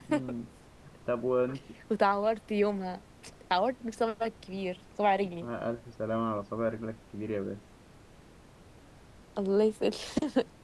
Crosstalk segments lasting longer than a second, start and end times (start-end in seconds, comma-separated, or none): none